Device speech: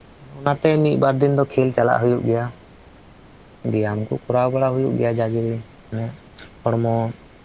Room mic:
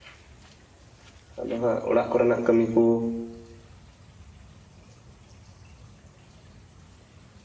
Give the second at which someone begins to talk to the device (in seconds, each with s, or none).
1.4 s